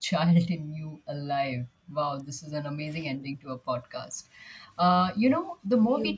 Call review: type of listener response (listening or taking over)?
listening